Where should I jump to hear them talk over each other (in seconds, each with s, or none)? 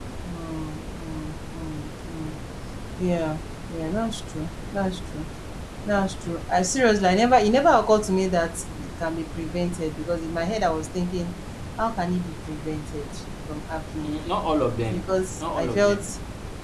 14.9 s